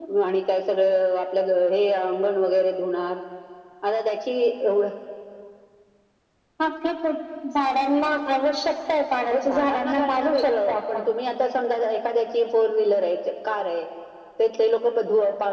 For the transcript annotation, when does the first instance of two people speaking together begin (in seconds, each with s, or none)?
9.3 s